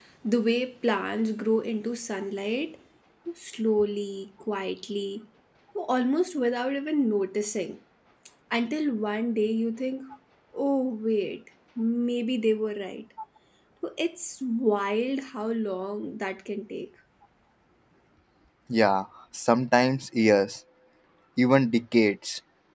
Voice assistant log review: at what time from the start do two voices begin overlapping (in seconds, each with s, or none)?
none